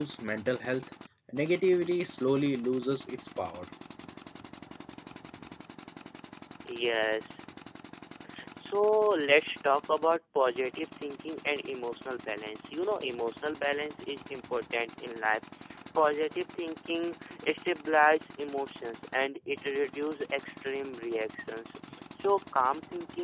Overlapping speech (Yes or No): No